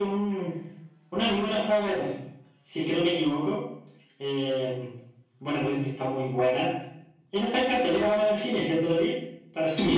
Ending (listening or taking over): taking over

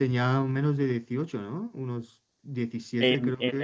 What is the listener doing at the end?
taking over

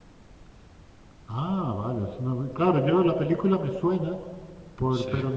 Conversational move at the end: listening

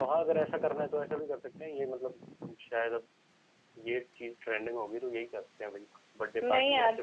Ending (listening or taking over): taking over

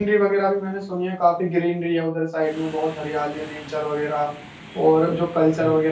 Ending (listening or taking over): listening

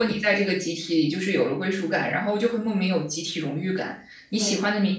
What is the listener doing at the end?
listening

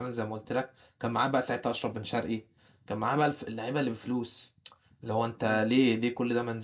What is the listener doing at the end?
listening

